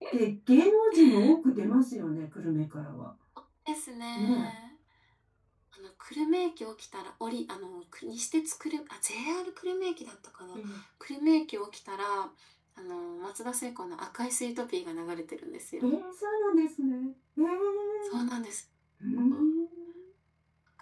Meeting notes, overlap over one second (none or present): none